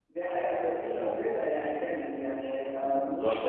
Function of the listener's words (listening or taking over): taking over